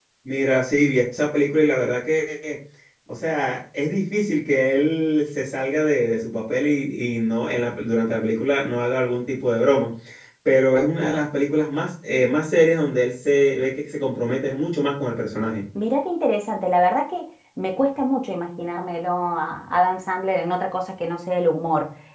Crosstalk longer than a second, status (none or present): none